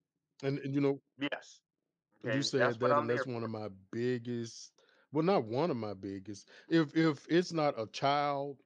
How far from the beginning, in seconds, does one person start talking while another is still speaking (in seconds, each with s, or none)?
2.2 s